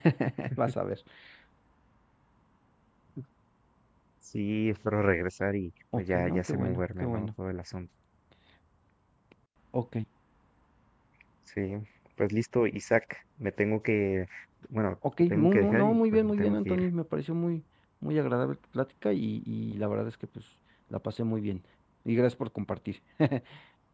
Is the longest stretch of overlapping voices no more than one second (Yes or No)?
No